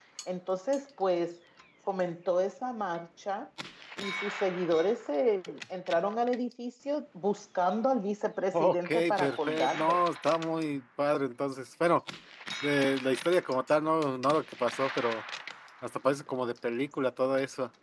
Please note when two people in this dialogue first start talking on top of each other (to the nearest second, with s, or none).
9 s